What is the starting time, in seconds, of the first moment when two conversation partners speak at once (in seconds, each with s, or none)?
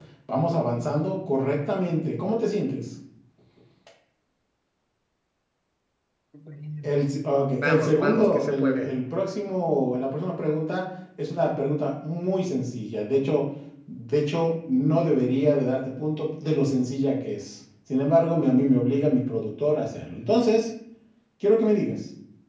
7.6 s